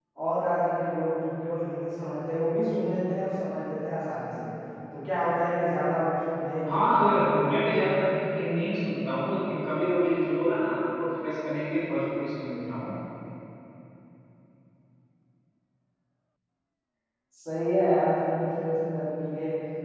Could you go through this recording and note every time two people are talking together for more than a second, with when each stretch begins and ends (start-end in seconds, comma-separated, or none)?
none